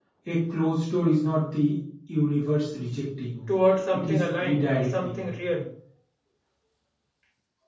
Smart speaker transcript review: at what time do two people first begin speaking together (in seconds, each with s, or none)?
3.9 s